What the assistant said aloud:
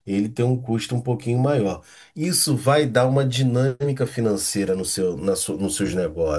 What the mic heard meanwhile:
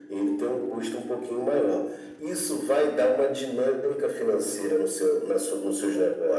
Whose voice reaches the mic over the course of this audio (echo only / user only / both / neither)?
echo only